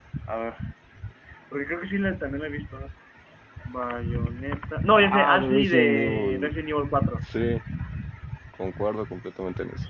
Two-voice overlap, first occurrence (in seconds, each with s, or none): 5.0 s